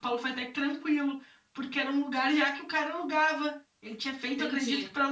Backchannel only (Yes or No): Yes